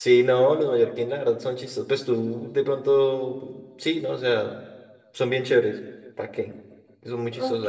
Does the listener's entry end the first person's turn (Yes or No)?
Yes